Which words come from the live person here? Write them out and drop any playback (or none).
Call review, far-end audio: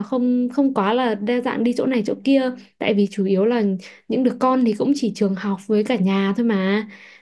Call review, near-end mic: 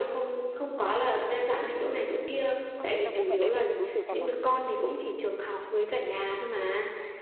Ơ, thế là bố mẹ đấy phân biệt đối xử thật à?